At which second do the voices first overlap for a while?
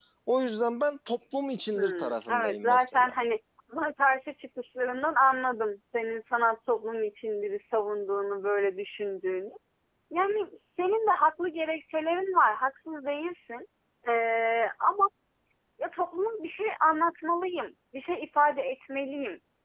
1.7 s

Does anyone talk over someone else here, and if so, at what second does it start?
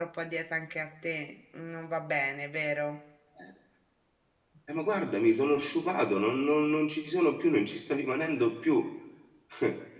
none

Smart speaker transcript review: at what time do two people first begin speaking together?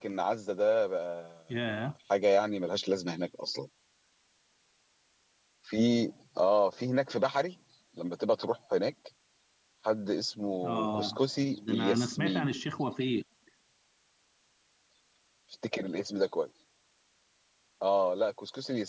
10.6 s

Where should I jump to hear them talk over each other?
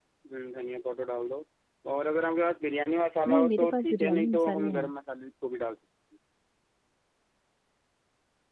3.3 s

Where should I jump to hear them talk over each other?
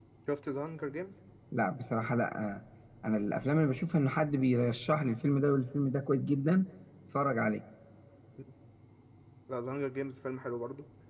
none

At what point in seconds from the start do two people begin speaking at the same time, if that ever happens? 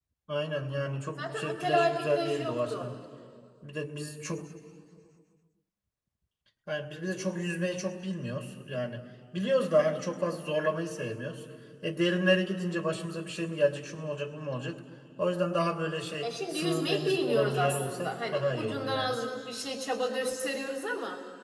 1.2 s

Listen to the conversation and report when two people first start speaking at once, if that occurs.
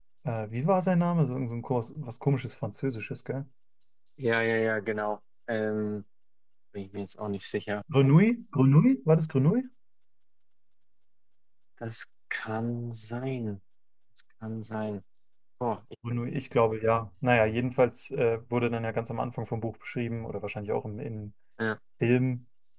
none

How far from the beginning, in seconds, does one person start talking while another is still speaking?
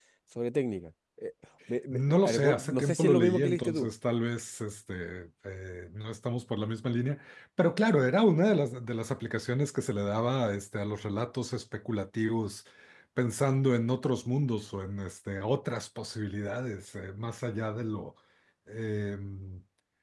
1.9 s

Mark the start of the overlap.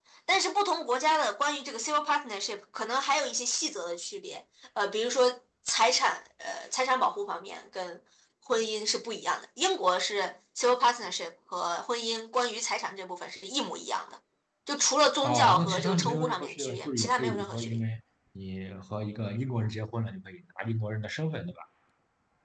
15.2 s

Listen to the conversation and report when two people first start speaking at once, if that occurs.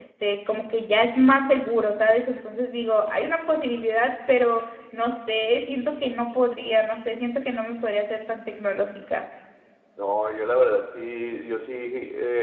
none

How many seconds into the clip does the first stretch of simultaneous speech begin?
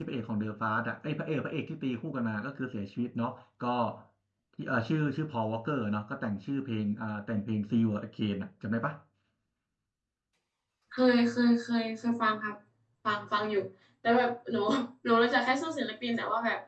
none

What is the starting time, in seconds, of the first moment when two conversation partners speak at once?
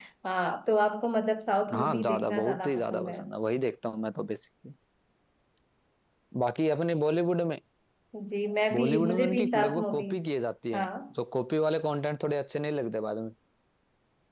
1.7 s

